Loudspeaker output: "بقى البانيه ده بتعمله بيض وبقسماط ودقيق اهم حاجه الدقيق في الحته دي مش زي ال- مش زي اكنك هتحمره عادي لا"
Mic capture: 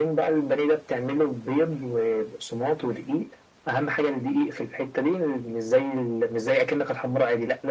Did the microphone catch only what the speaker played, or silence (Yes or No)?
Yes